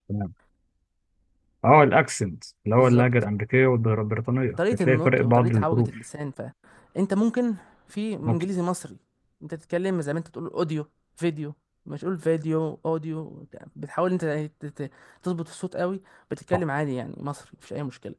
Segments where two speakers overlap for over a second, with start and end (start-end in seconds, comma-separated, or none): 4.6-5.9